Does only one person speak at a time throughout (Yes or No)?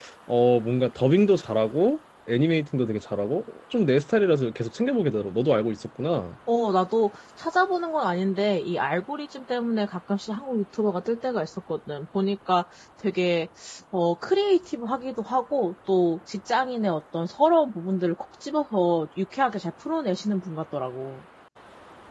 Yes